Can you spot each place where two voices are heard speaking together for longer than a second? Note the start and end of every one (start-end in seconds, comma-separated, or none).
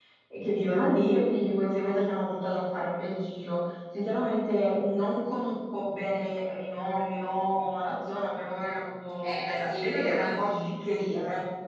9.2-10.6